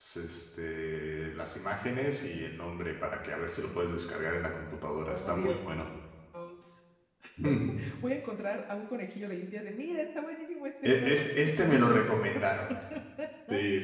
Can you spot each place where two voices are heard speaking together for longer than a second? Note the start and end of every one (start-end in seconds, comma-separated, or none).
10.8-12.4